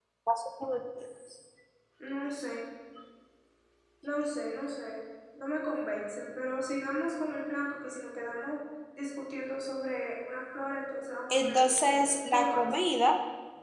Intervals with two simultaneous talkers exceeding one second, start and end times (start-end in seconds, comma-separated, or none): 11.3-12.8